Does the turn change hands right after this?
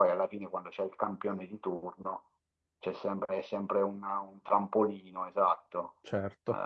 No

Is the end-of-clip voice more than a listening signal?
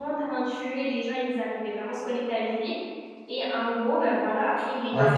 Yes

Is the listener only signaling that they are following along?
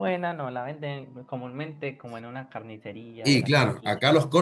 No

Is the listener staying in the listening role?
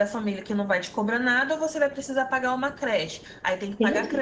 No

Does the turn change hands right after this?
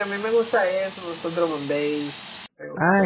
Yes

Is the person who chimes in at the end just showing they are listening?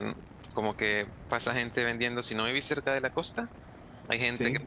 Yes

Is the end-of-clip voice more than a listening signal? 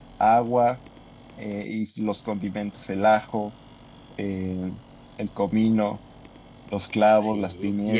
Yes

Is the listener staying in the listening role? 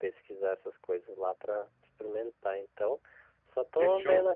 Yes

